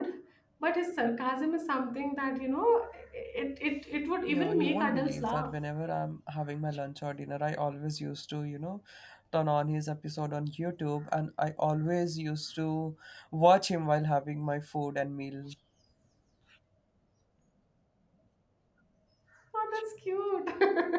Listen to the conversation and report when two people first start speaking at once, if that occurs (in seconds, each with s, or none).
4.3 s